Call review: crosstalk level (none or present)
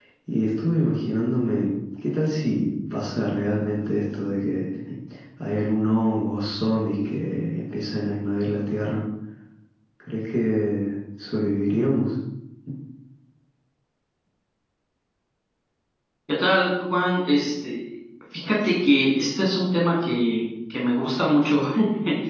none